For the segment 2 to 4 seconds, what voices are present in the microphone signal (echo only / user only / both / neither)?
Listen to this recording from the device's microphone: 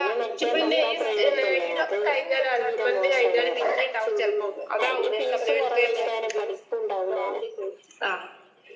both